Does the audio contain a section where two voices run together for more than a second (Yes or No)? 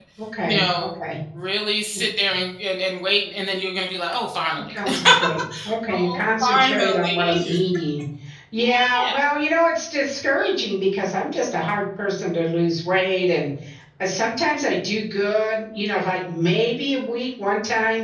Yes